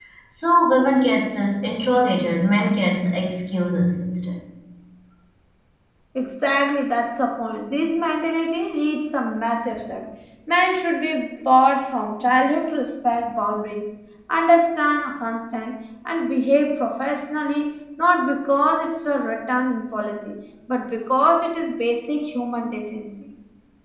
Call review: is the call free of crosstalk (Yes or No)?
Yes